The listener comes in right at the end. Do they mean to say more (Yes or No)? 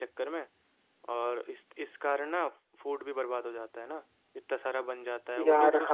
No